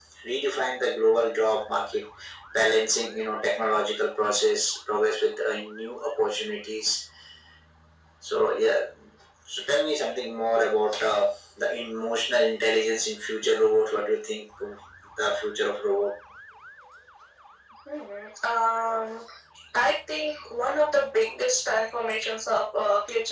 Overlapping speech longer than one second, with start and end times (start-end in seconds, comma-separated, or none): none